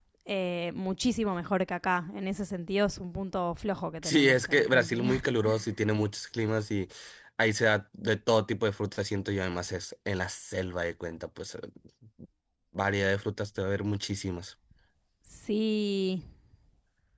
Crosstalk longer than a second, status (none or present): present